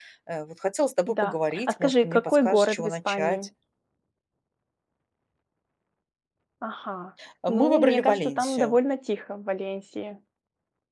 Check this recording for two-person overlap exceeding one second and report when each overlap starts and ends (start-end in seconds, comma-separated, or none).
1.1-3.5, 7.5-8.8